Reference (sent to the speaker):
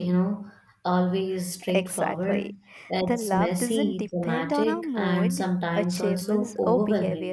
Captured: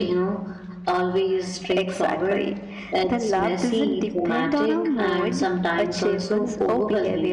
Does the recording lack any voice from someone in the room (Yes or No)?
Yes